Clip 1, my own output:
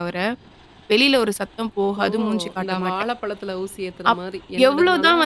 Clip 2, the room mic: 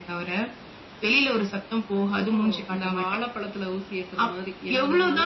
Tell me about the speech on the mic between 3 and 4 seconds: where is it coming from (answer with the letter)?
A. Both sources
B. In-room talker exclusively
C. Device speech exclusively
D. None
C